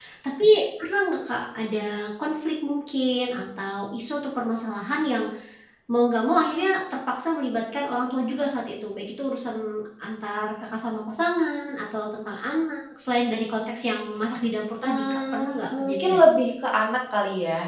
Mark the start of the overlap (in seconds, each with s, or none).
14.8 s